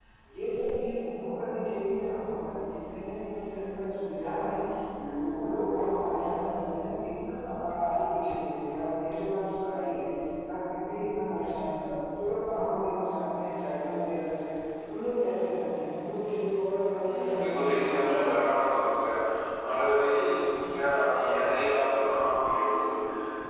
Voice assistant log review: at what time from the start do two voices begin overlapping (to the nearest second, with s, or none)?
17 s